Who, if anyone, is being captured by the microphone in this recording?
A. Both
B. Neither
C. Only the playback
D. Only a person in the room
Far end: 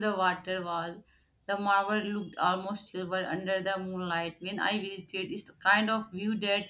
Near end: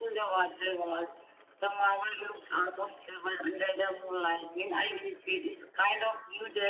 C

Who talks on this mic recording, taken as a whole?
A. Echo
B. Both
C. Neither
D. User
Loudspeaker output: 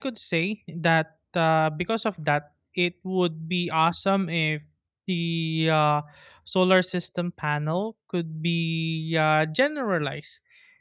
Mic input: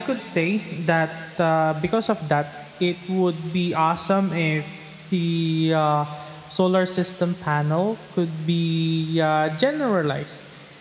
A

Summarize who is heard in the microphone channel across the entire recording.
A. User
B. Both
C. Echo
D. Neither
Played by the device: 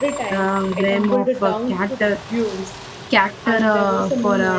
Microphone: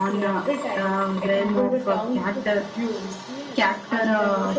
B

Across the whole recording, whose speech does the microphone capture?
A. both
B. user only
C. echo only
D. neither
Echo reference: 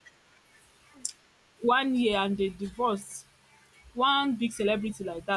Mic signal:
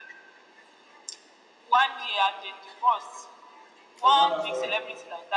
A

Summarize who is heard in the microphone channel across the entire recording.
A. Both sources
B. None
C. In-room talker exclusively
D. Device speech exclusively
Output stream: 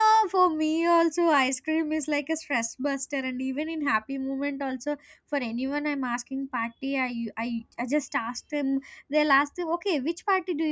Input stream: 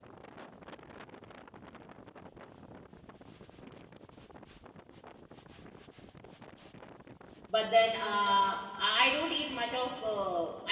C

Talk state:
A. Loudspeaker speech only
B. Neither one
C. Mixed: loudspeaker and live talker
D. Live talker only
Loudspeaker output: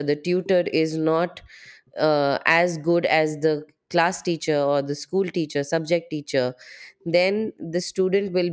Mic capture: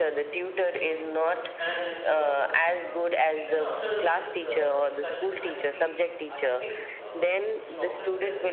C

